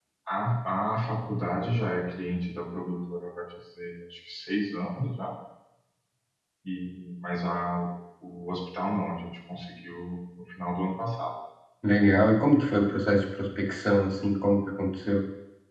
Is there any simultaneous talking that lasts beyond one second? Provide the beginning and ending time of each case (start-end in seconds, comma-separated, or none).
none